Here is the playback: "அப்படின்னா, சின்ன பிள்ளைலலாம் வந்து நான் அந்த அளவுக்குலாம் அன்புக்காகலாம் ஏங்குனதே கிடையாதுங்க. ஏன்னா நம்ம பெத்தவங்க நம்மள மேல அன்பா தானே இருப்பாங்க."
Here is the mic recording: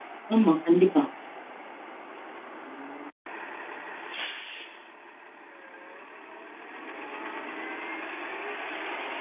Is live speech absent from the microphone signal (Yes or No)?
No